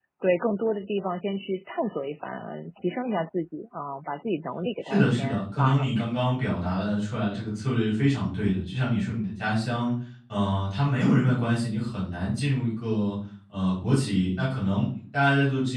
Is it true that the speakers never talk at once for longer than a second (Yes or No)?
No